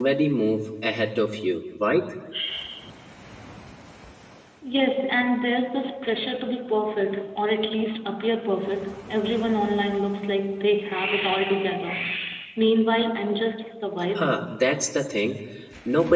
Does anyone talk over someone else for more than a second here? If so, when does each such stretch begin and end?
none

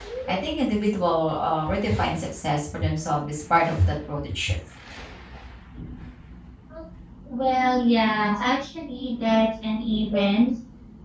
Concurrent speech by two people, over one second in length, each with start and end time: none

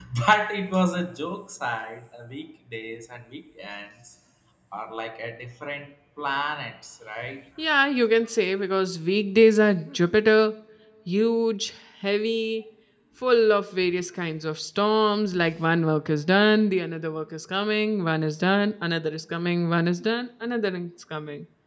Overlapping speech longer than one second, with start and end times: none

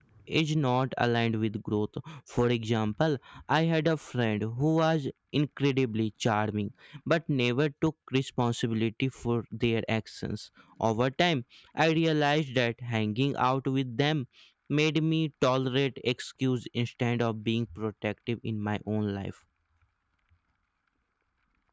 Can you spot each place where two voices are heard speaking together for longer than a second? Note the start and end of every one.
none

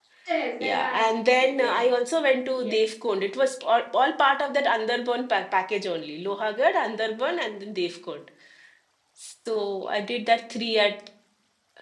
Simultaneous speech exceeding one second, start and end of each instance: 0.6-1.8

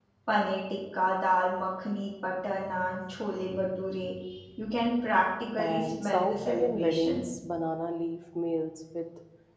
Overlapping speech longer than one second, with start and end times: 5.6-7.2

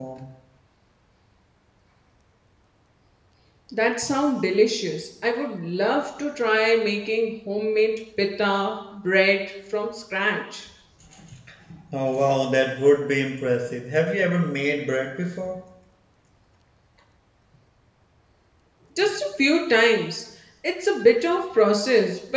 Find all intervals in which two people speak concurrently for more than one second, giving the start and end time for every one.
none

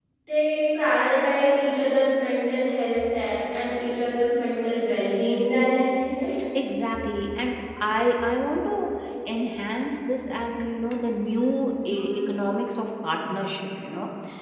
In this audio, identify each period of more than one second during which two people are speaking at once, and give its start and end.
none

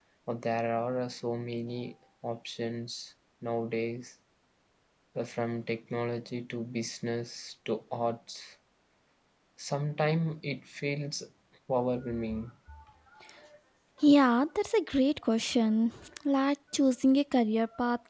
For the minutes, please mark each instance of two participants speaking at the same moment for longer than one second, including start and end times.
none

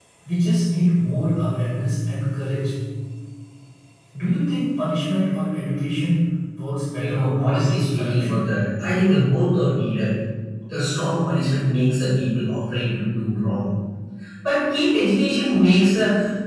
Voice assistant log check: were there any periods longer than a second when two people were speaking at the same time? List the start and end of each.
7.0-8.4

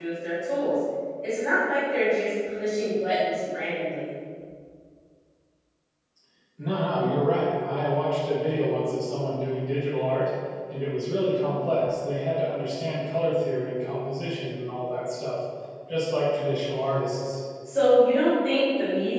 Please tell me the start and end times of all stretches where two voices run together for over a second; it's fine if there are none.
none

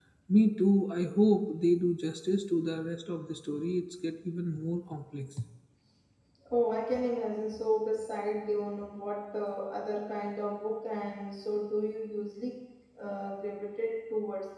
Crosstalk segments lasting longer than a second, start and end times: none

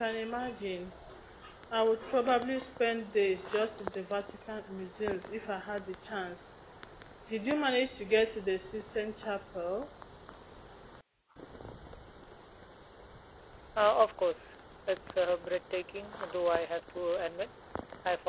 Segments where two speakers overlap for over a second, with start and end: none

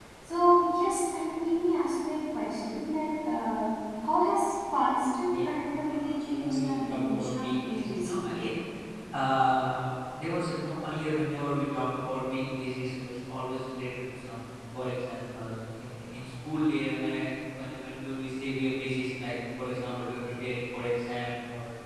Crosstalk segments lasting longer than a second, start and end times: 5.9-8.2

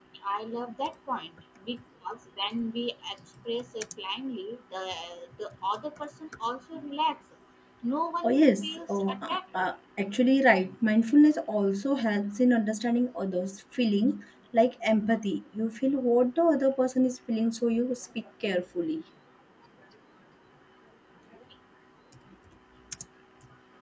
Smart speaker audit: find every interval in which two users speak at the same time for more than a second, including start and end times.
8.2-9.6

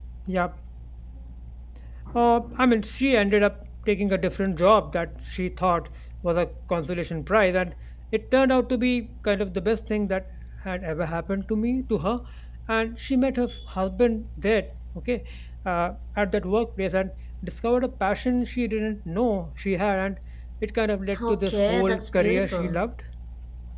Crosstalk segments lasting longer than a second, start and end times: 21.3-22.9

